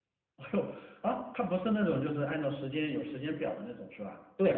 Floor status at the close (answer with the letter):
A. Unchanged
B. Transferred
B